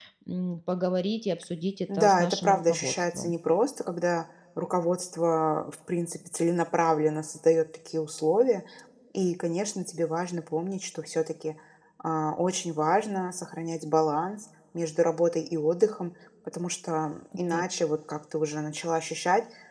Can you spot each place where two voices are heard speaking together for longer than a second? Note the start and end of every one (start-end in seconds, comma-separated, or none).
1.9-3.3